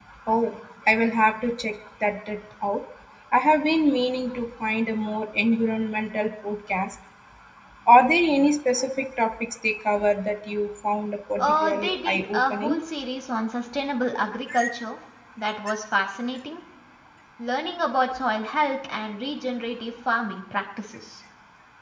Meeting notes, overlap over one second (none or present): present